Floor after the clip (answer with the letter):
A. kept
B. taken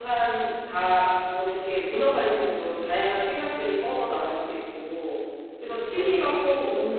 A